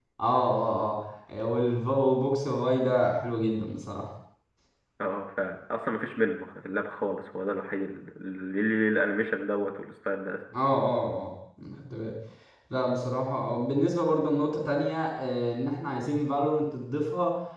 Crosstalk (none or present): none